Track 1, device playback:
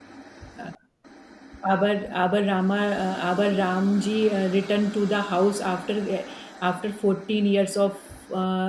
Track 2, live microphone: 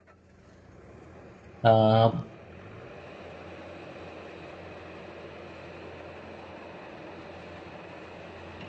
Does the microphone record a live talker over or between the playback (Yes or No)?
Yes